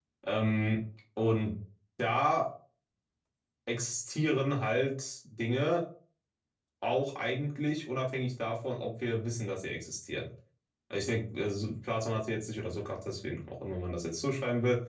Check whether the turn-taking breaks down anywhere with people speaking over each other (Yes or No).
No